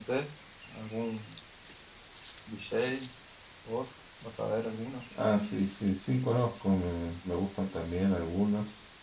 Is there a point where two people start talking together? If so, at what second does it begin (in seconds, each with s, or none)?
none